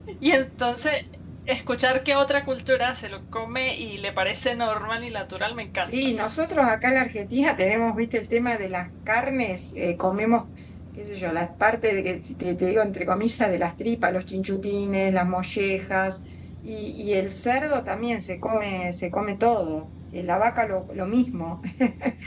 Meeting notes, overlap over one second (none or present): none